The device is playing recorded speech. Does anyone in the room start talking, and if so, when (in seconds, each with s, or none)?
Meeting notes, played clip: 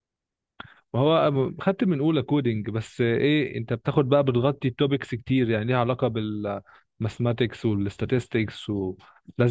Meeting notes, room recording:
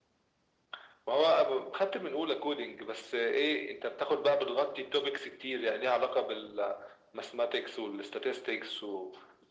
none